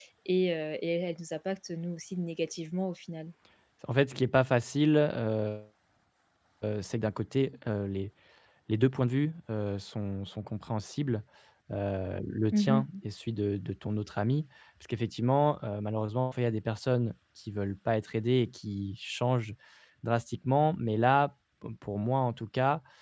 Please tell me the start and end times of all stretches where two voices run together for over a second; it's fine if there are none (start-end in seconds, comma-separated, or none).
none